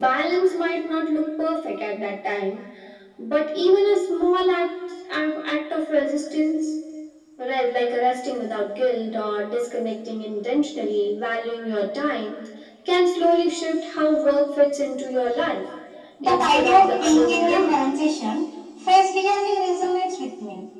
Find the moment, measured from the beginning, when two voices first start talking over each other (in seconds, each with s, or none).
16.2 s